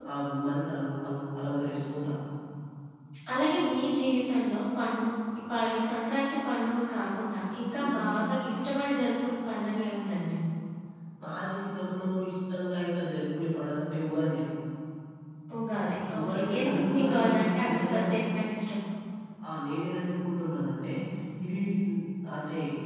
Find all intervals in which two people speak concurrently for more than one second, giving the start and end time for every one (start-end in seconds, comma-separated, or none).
16.1-18.2